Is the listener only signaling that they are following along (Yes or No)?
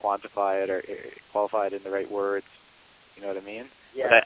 Yes